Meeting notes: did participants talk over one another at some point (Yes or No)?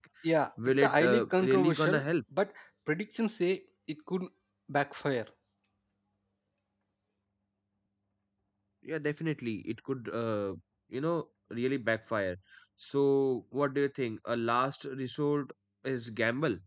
Yes